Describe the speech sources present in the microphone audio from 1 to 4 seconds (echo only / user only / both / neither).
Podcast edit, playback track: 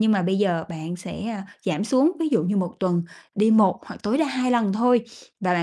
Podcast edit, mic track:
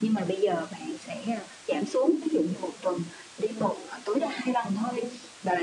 echo only